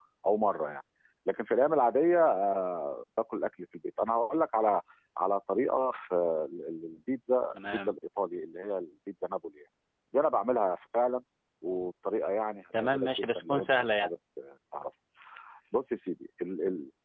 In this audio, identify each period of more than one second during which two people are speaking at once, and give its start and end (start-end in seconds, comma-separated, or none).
12.8-14.1